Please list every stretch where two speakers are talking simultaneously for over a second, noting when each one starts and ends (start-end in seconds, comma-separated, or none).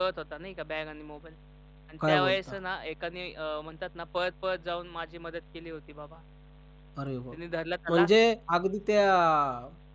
none